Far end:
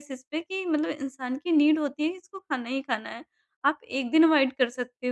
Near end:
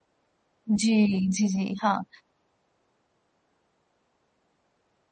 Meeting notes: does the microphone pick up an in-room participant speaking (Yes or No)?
Yes